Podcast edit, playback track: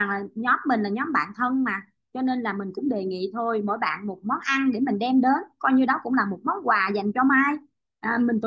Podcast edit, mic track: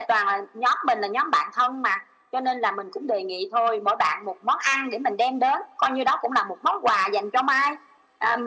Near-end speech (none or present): none